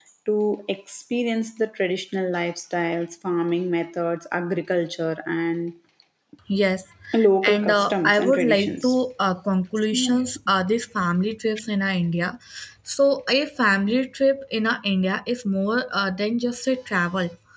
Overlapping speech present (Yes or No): Yes